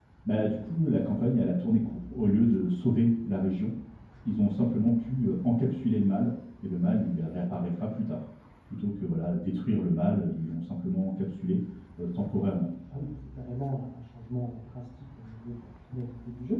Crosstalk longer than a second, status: none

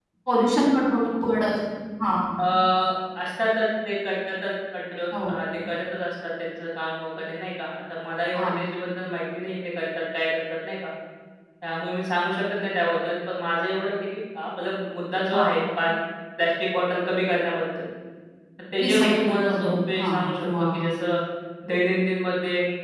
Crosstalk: present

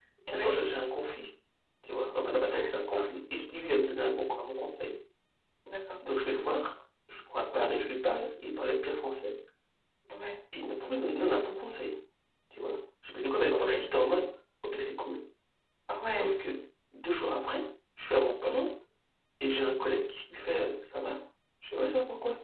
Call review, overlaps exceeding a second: none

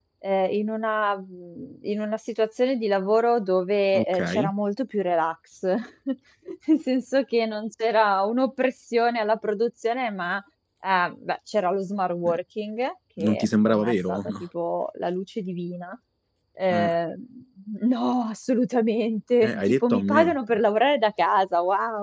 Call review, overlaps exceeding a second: present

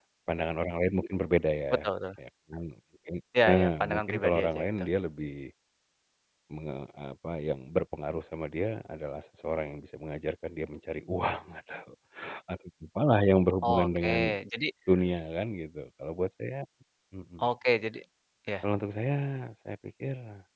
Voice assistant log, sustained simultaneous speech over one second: present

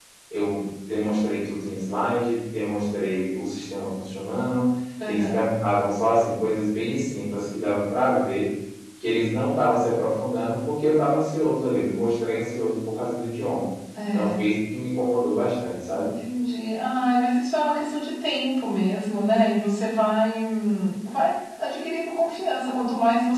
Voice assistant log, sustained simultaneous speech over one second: none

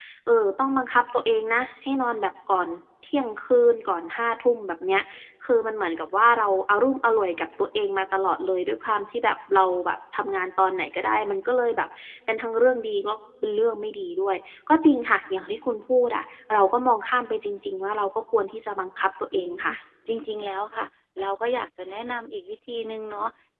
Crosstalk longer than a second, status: none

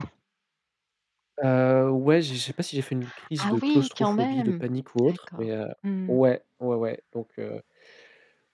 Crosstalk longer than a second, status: present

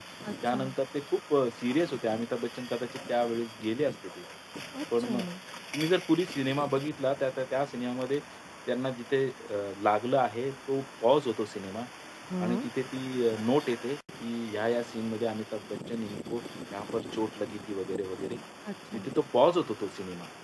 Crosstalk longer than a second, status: none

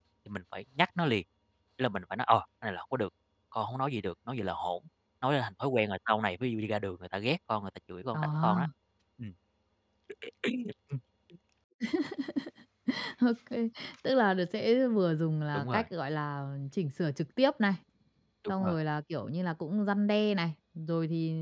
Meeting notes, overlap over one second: none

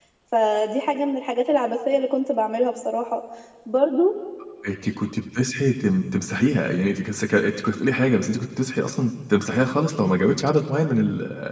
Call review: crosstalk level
none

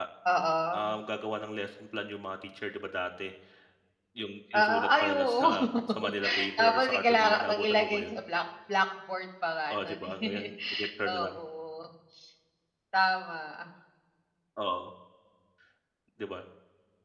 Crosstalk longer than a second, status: present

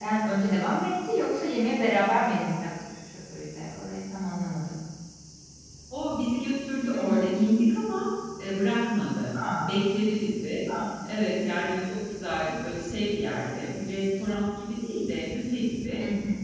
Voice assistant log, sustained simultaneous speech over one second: none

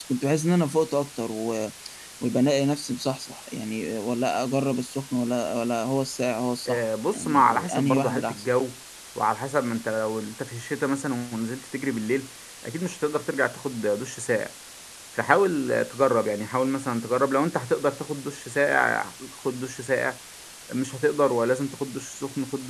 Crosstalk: present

